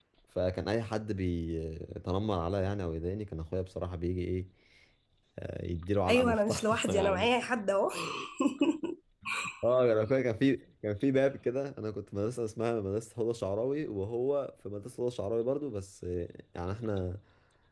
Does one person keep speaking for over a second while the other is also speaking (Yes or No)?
Yes